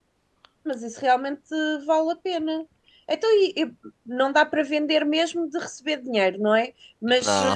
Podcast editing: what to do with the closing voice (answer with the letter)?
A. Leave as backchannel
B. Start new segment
A